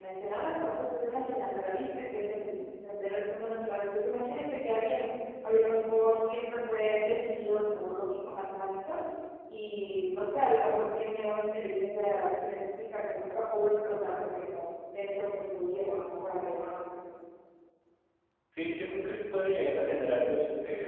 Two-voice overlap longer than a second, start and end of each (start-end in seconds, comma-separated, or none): none